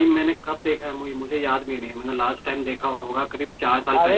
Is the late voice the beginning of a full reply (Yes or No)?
Yes